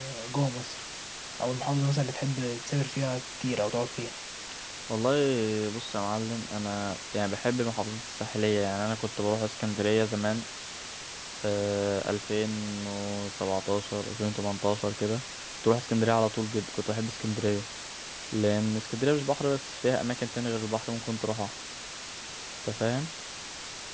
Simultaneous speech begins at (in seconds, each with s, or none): none